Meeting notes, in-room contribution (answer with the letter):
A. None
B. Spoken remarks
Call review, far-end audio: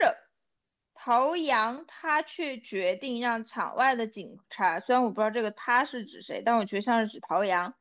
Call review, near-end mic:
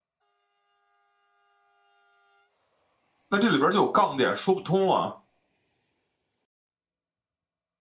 B